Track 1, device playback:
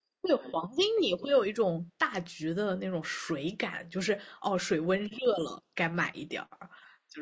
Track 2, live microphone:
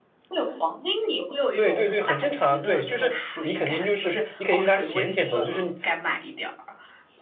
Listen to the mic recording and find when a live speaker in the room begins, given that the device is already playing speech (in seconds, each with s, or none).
1.5 s